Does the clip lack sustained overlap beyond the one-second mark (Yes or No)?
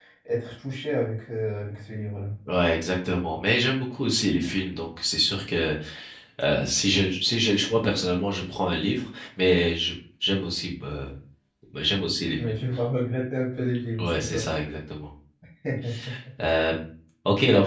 Yes